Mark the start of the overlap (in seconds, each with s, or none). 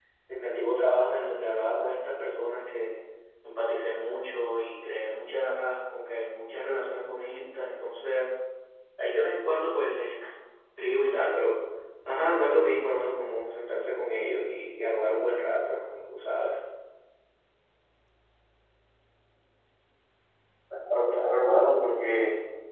none